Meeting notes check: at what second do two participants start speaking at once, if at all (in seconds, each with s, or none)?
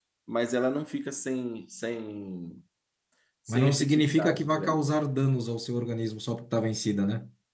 3.5 s